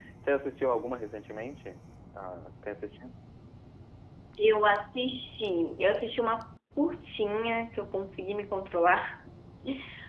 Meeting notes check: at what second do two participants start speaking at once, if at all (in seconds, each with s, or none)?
none